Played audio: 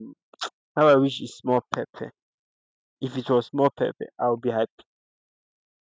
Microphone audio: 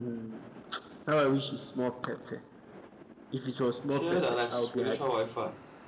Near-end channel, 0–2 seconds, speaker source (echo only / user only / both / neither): echo only